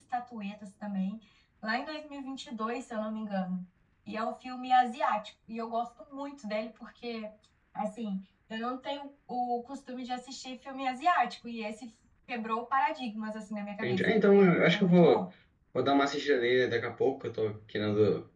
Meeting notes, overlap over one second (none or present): present